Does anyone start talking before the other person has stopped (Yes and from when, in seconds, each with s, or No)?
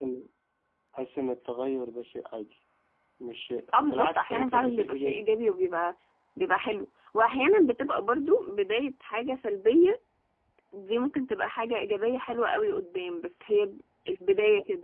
Yes, from 3.7 s